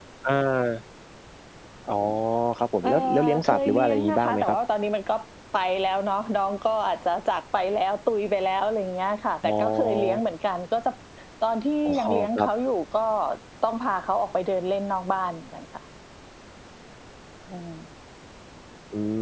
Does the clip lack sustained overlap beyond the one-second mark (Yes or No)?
No